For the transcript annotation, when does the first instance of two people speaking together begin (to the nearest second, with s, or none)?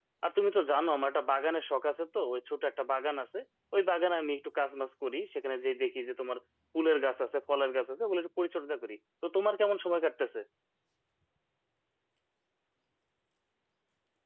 none